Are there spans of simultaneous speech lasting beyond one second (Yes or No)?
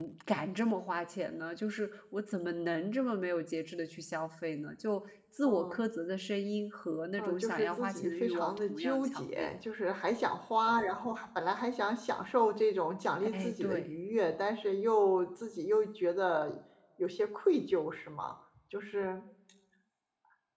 Yes